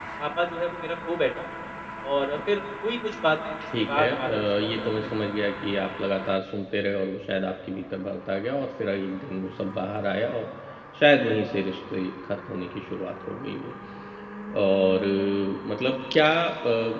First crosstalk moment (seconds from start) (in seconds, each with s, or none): 3.6 s